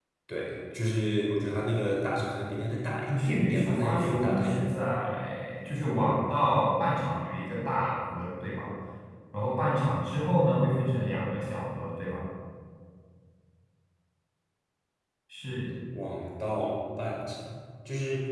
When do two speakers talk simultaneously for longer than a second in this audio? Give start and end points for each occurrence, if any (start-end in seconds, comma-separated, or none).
3.1-4.6